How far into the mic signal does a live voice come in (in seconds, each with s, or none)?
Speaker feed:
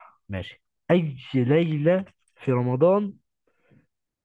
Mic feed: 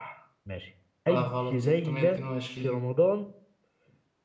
1.1 s